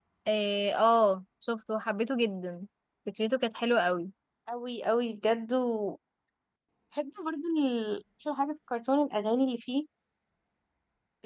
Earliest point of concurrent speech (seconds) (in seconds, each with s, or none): none